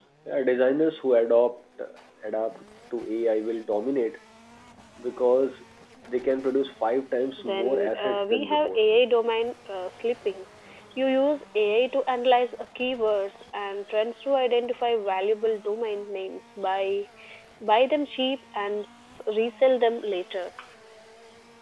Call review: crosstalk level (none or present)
present